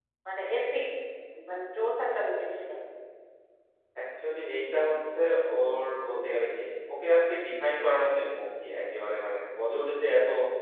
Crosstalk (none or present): none